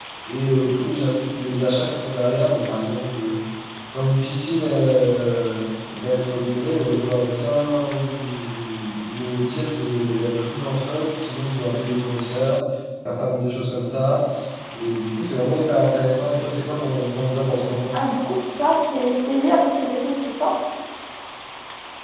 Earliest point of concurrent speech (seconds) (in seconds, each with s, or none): none